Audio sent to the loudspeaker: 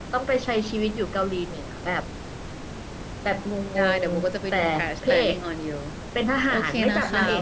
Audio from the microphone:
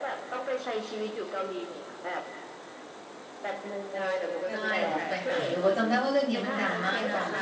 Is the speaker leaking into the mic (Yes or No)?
Yes